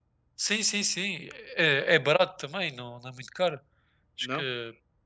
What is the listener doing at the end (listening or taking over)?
listening